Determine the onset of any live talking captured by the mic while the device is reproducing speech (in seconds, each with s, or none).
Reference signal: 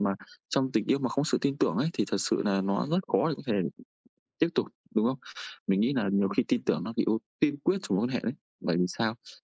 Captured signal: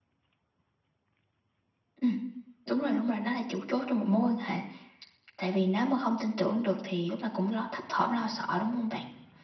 2.0 s